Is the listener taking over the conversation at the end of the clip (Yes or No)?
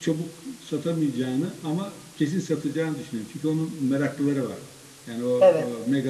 No